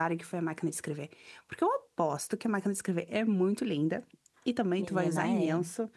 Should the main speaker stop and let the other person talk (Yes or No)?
No